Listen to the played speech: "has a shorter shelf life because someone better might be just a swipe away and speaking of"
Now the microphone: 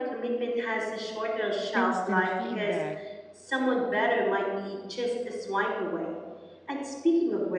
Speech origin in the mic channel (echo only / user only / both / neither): both